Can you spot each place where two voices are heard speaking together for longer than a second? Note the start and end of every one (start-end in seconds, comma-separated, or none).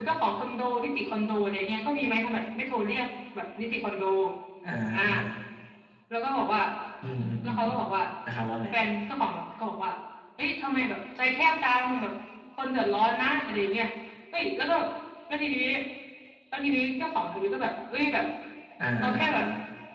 none